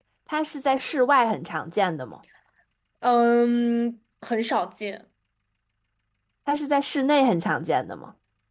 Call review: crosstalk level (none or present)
none